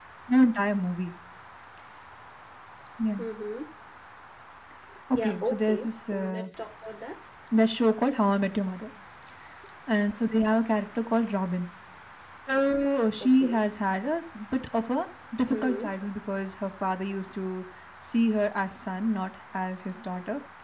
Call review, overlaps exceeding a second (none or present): present